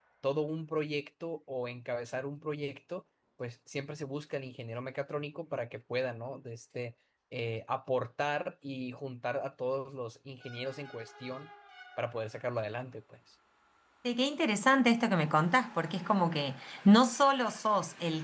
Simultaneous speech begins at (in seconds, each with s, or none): none